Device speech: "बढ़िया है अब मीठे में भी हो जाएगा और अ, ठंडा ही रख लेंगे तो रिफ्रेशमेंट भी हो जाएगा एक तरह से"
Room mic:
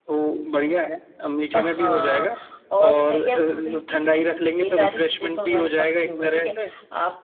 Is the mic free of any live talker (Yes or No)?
No